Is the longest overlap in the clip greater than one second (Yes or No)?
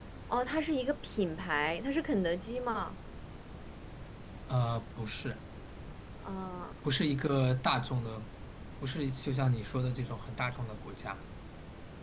No